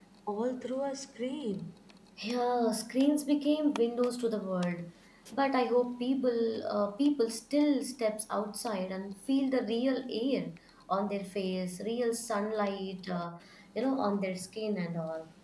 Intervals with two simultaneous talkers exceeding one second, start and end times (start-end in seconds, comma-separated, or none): none